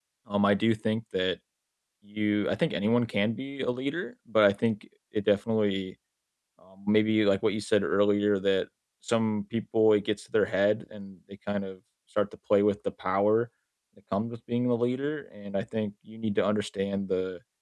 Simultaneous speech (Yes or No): No